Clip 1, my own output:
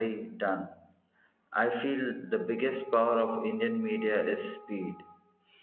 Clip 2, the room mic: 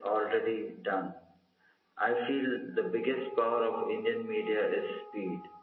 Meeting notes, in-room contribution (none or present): none